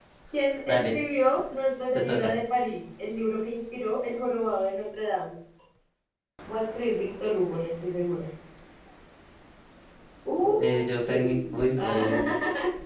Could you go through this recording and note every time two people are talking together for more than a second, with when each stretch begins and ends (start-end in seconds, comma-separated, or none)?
10.6-12.3